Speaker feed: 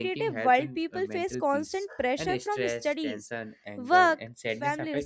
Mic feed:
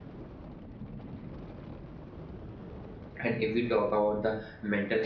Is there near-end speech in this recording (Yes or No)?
Yes